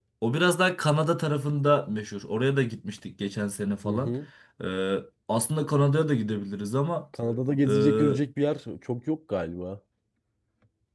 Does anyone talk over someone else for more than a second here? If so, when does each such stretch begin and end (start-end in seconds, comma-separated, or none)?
none